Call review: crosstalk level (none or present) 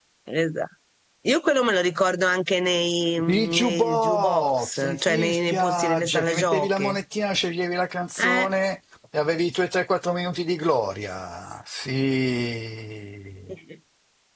present